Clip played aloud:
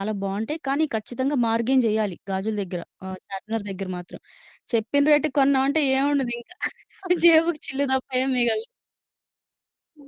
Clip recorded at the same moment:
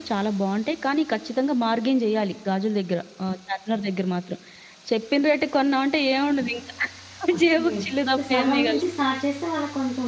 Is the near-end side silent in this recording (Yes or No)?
No